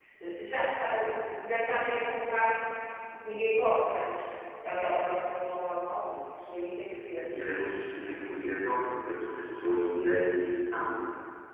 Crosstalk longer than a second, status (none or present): none